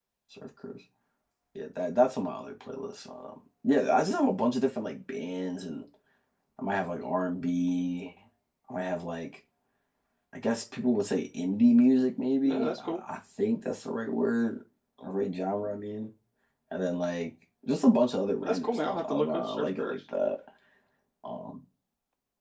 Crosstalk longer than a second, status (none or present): present